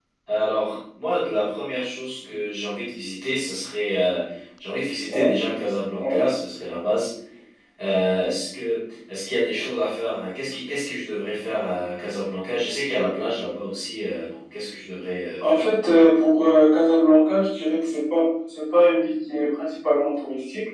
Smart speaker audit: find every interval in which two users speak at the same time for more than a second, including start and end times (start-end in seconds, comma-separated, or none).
none